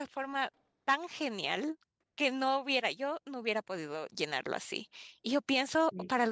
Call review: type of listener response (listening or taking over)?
listening